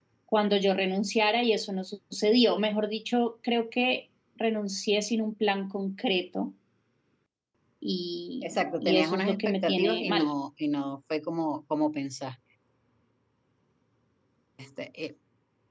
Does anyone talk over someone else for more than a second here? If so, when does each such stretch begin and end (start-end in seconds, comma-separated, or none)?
8.4-10.3